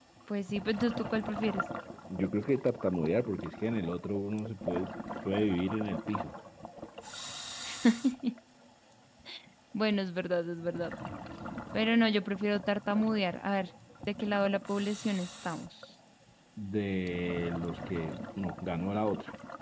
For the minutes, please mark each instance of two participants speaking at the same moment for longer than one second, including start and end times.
none

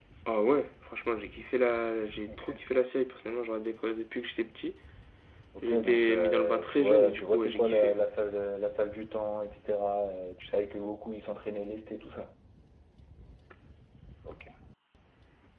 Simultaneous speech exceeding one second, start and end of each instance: 5.6-8.0

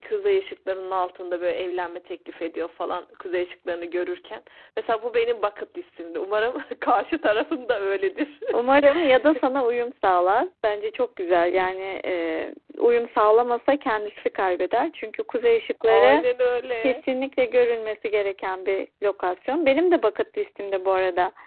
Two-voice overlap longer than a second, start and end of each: none

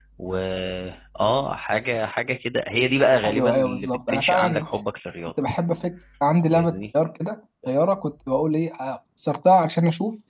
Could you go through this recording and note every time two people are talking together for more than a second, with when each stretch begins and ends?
3.2-4.7

